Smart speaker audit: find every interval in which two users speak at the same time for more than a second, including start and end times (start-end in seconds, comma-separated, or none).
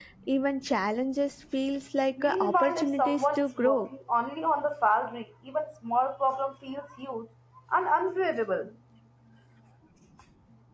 2.2-3.9